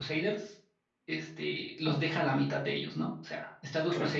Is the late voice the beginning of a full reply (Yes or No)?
No